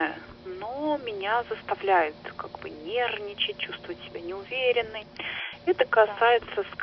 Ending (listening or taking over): listening